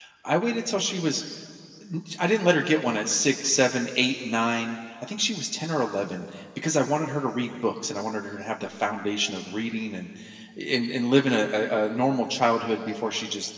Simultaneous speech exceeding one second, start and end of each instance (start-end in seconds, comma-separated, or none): none